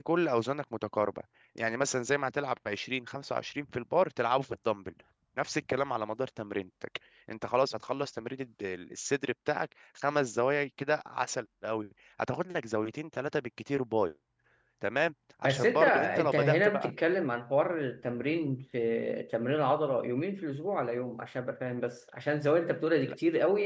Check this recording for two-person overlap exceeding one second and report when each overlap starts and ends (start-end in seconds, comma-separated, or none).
15.4-16.9